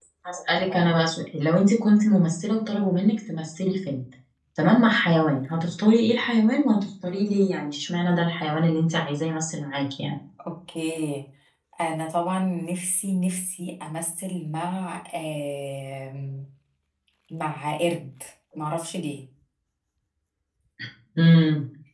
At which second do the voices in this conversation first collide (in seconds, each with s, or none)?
none